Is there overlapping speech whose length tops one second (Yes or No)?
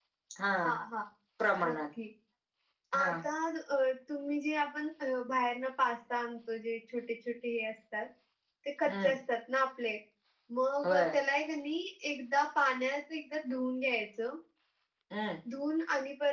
No